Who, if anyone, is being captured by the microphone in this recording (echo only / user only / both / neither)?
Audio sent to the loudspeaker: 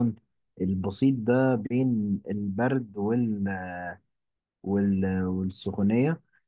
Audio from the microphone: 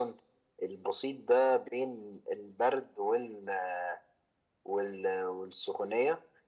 echo only